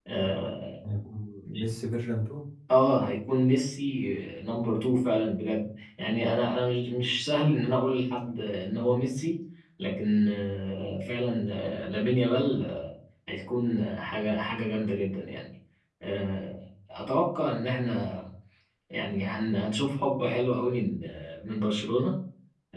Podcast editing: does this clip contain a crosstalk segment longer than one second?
No

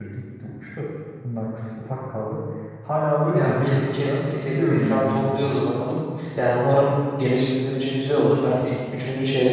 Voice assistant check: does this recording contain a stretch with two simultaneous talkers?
Yes, from 3.2 s

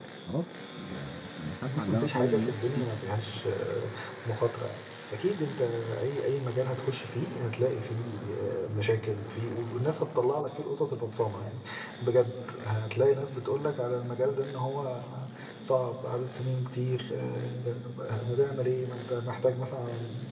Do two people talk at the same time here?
Yes, from 1.4 s

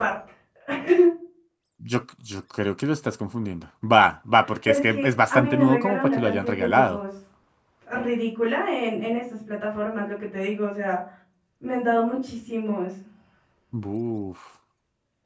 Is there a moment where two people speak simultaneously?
Yes, from 4.7 s

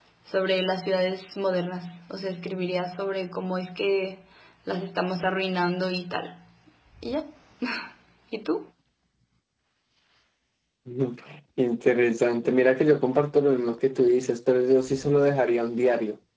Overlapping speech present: No

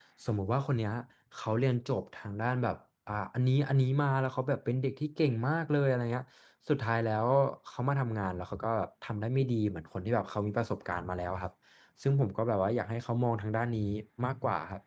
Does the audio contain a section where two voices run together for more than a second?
No

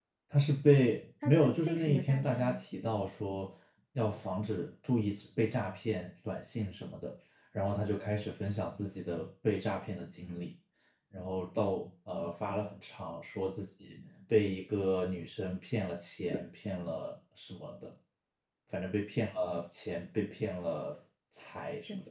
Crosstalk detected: Yes, from 1.2 s

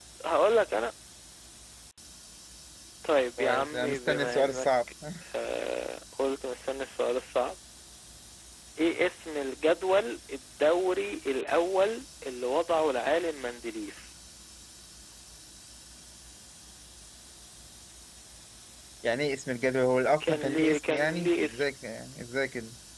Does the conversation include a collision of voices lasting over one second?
Yes, from 3.4 s

